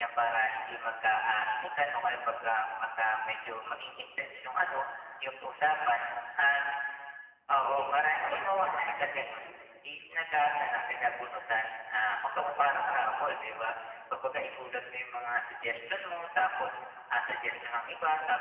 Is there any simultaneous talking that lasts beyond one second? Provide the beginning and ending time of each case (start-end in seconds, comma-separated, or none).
7.5-9.5